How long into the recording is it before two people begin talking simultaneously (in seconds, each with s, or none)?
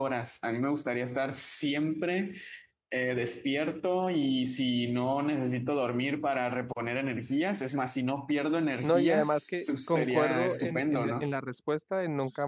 8.8 s